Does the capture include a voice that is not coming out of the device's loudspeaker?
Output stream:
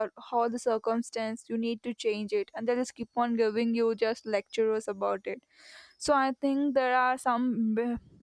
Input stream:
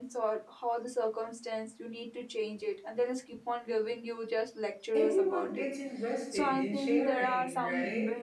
Yes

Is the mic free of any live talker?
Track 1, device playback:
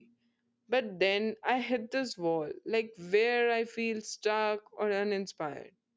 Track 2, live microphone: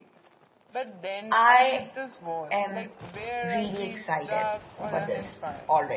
No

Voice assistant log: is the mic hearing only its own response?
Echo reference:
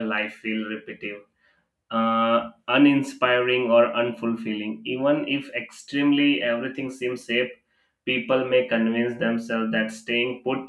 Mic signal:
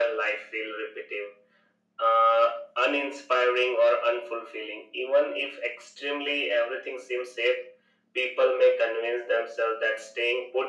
Yes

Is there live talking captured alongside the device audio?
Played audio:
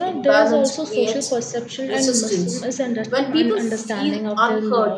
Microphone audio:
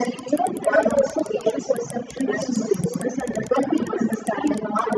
No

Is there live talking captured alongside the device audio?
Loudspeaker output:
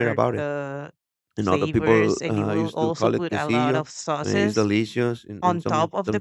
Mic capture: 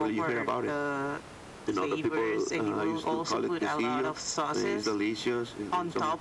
No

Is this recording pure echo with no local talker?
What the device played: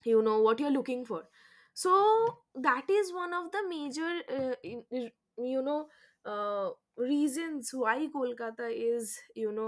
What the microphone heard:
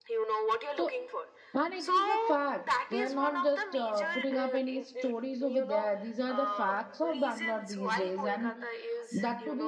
No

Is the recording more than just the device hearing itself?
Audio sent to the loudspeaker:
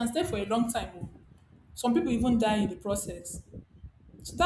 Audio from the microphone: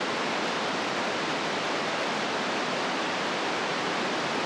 No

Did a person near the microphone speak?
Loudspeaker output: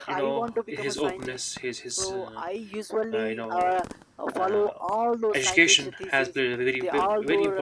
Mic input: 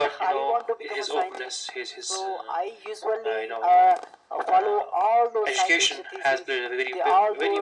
No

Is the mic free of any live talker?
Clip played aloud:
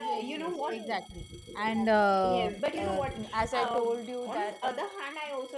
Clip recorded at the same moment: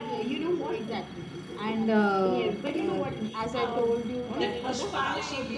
No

